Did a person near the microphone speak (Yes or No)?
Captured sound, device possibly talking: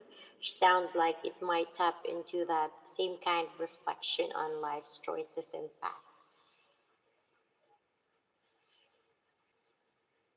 No